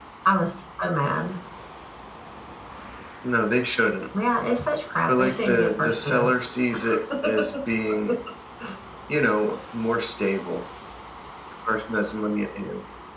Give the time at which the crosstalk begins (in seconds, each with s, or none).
5.1 s